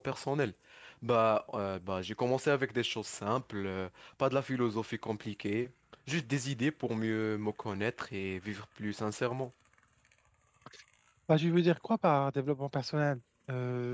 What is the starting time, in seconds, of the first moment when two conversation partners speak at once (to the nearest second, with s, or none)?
none